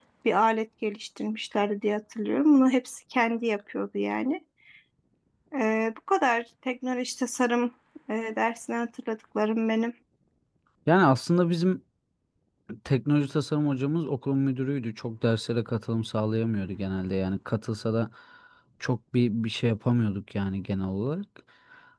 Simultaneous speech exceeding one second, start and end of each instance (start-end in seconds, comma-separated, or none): none